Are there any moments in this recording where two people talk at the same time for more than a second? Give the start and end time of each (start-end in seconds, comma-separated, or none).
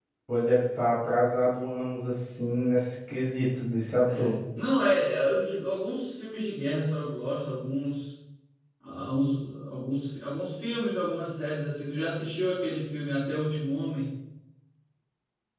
none